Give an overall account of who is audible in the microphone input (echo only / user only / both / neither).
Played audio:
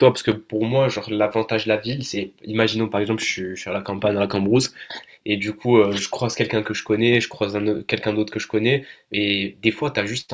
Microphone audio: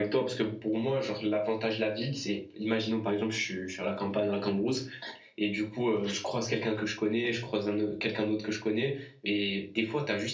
echo only